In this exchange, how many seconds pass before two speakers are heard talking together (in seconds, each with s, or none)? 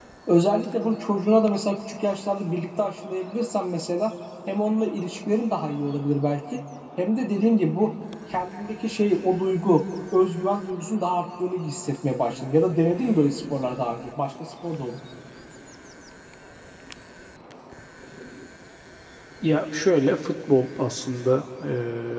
none